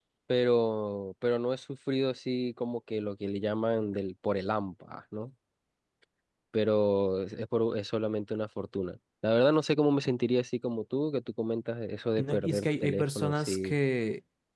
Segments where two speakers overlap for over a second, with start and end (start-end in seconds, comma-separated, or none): 12.2-13.8